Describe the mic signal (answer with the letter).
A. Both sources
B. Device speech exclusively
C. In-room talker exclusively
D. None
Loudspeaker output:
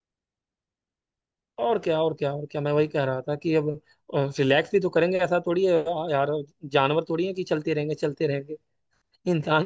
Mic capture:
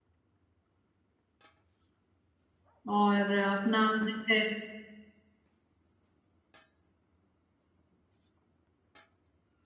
C